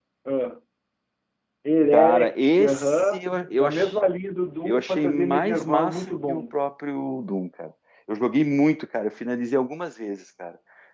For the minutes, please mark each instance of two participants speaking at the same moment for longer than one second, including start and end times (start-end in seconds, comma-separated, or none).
1.9-3.2, 4.7-6.4